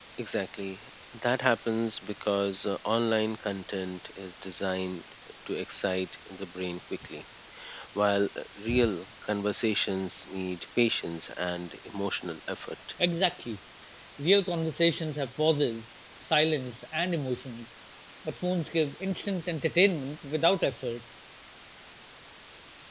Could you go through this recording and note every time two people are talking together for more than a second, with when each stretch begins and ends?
none

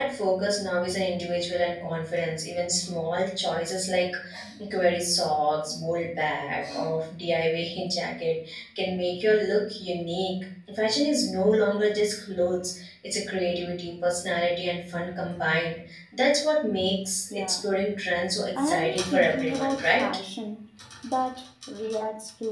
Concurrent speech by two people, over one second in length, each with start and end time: 18.6-20.0

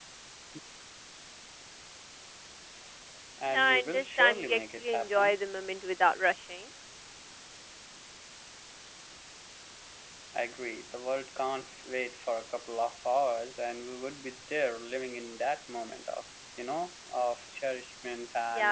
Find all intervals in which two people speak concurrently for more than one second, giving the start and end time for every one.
3.5-5.4

